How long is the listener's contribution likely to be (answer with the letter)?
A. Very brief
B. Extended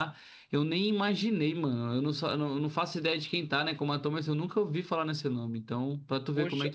B